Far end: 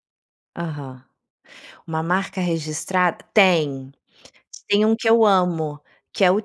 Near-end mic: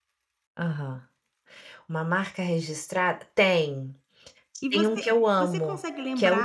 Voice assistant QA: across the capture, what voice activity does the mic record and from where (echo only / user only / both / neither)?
both